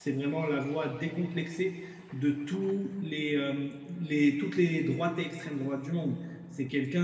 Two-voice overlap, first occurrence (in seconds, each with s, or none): none